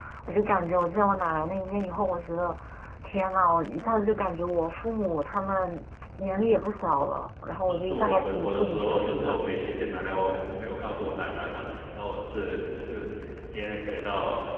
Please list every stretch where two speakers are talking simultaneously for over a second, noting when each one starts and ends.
7.7-9.4

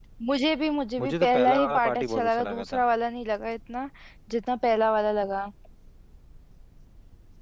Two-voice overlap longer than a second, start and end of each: 1.0-2.8

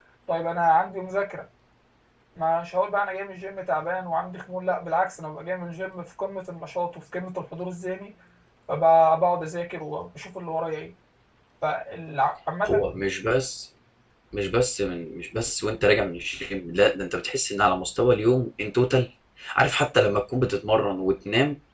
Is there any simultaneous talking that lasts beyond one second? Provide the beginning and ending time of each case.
none

